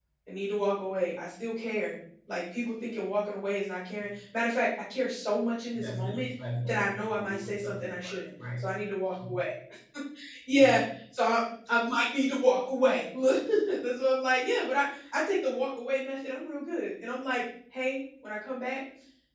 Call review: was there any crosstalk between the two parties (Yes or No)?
Yes